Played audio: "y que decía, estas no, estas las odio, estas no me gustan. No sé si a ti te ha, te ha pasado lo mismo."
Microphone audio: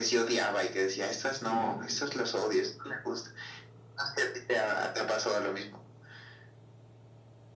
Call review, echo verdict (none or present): present